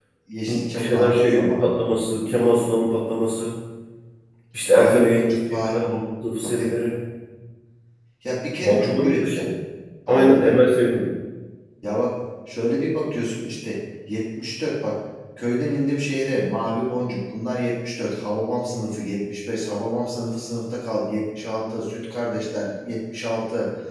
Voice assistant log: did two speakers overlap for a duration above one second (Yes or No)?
Yes